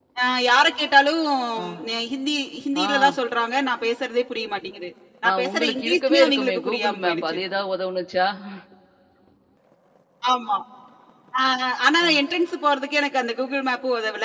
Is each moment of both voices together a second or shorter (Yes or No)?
No